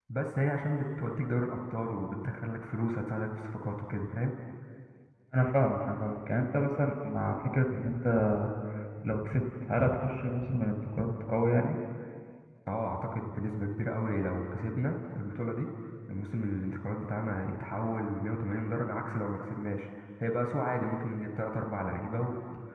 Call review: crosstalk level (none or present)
none